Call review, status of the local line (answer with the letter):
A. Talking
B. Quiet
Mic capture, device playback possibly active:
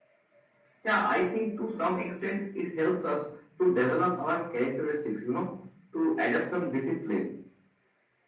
B